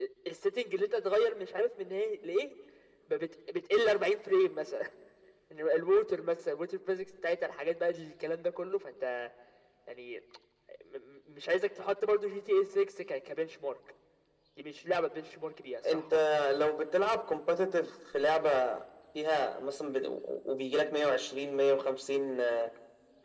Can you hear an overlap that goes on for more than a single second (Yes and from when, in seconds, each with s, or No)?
No